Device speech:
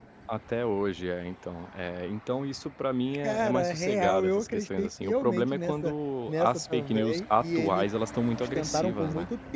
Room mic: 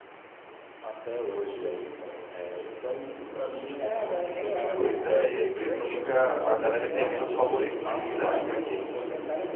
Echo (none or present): present